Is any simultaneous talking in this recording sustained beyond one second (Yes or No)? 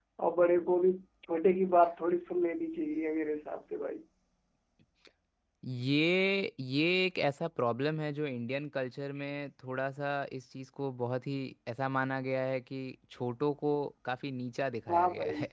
No